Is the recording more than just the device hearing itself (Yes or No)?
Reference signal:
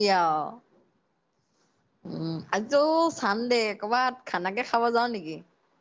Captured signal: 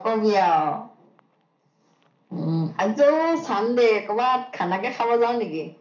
No